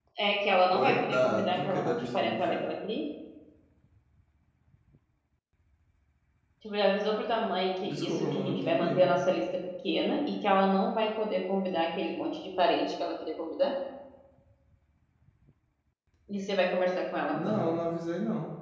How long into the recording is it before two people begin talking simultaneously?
0.7 s

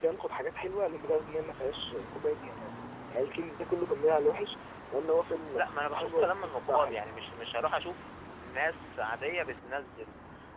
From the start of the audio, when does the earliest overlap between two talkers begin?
5.5 s

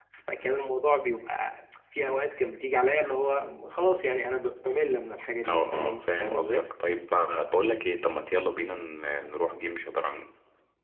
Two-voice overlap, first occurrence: 5.4 s

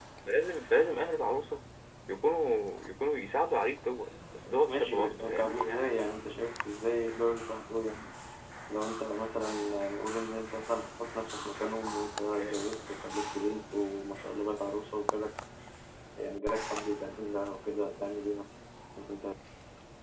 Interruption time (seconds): 4.7 s

